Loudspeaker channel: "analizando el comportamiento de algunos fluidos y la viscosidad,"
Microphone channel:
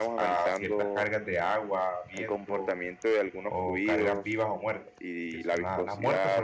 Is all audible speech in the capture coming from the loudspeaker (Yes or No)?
No